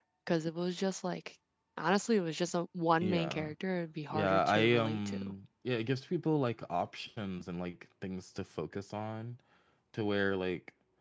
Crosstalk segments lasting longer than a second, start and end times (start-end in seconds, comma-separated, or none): 4.1-5.3